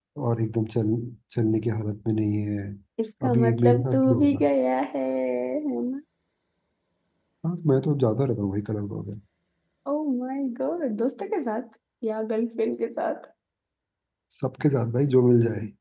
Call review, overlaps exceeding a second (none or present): present